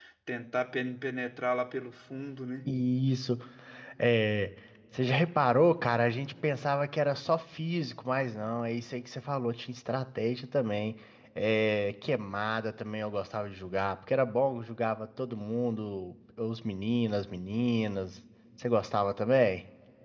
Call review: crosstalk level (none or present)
none